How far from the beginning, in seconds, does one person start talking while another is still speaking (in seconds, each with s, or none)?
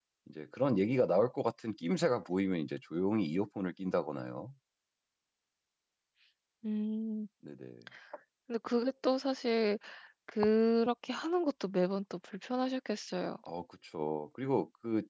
none